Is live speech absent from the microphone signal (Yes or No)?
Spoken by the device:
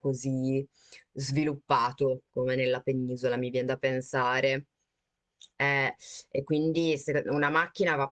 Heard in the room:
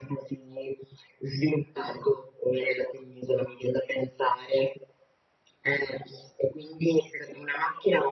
Yes